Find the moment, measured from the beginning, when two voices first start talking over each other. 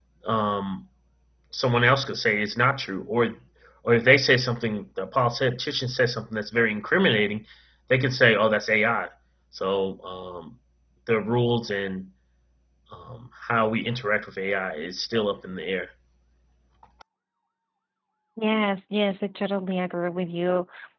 none

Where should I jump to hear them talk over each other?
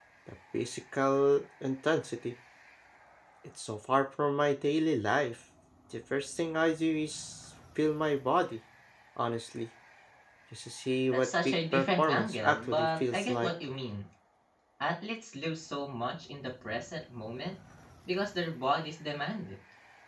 11.1 s

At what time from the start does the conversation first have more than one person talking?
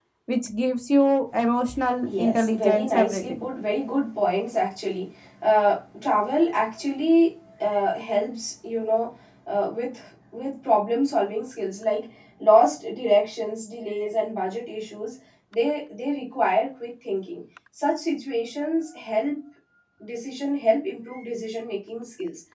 2.0 s

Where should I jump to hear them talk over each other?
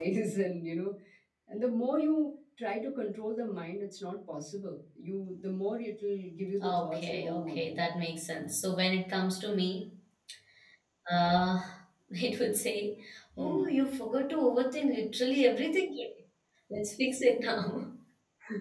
6.6 s

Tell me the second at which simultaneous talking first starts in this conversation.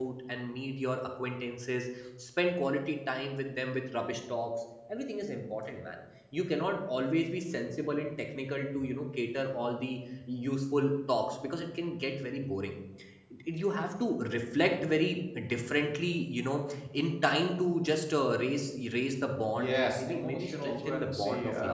19.5 s

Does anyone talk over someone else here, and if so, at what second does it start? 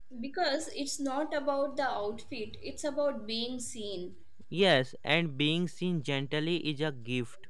none

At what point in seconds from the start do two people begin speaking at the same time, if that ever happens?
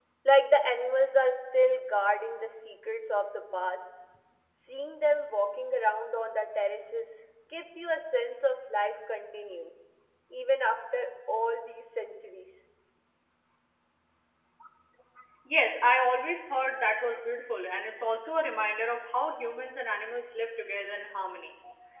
none

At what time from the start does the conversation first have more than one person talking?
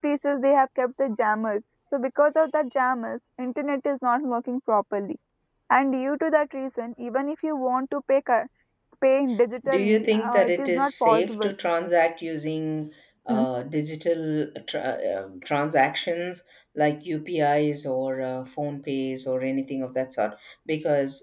9.7 s

